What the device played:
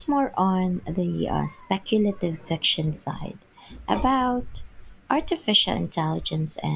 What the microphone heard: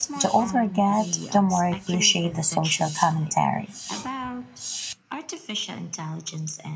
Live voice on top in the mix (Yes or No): Yes